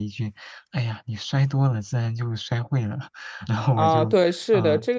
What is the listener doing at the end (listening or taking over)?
taking over